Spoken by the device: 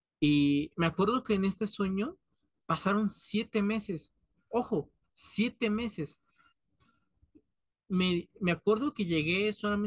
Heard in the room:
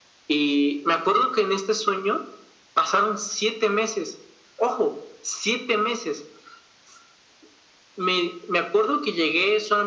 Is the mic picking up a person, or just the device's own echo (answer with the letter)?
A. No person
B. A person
A